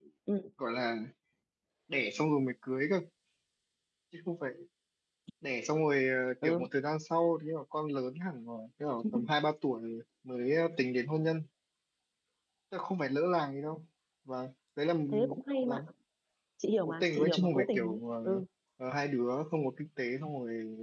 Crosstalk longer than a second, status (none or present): present